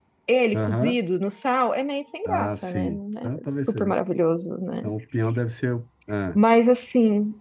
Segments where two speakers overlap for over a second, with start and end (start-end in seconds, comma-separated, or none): 2.3-3.9